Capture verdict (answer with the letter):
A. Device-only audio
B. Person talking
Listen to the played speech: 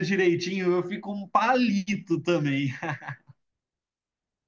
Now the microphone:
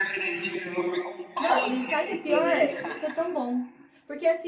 B